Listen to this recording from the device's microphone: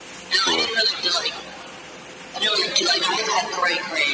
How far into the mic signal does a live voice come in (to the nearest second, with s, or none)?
0 s